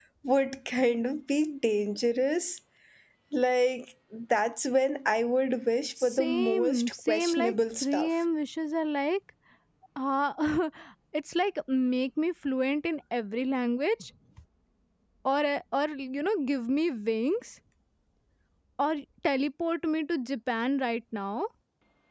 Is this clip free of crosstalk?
No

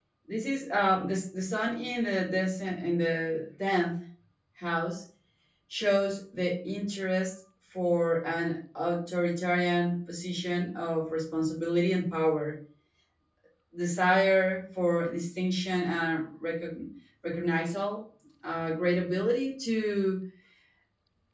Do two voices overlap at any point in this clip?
No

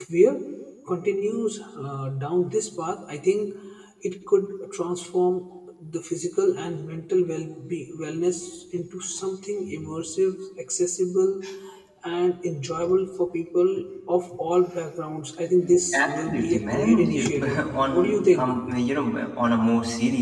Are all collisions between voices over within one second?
No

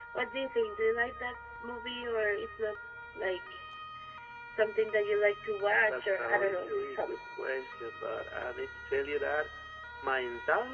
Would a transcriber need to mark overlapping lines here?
Yes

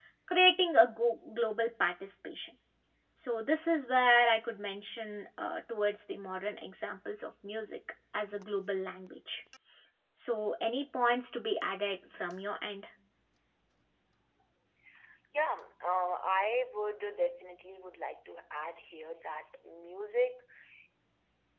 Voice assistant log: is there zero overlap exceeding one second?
Yes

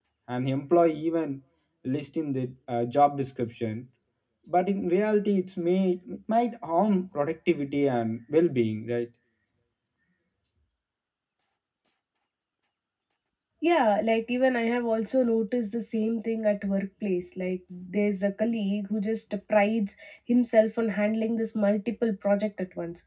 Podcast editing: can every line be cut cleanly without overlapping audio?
Yes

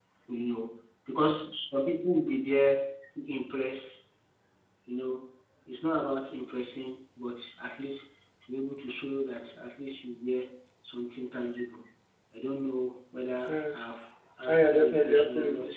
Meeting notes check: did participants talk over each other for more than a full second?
Yes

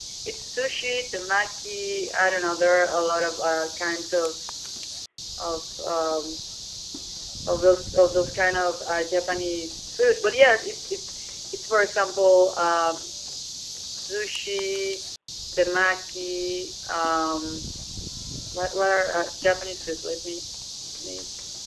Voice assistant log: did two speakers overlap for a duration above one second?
No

